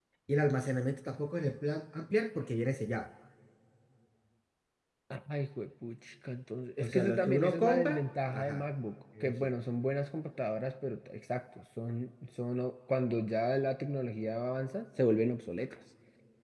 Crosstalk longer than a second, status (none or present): present